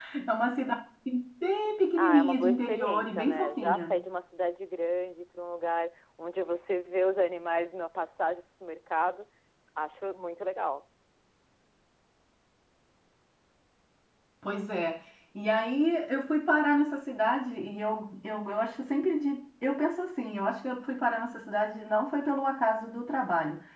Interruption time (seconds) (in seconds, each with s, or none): 2.0 s